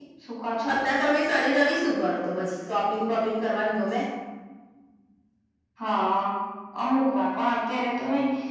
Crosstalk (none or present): none